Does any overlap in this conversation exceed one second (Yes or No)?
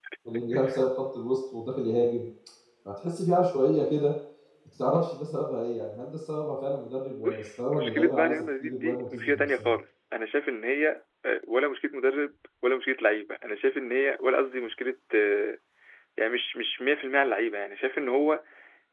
Yes